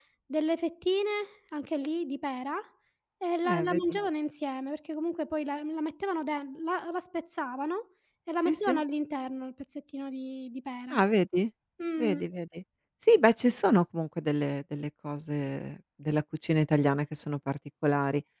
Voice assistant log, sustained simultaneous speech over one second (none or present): none